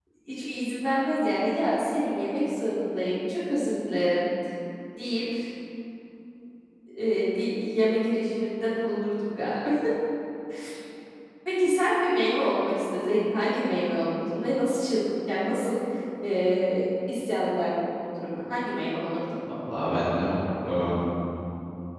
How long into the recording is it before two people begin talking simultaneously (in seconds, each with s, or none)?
none